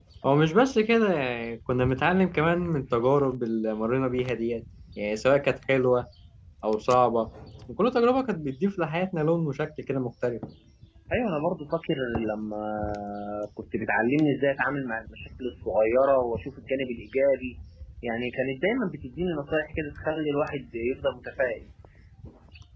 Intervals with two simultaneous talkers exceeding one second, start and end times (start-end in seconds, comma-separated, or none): none